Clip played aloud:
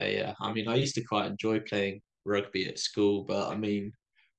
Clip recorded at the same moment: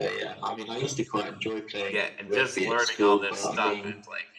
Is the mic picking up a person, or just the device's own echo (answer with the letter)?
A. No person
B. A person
B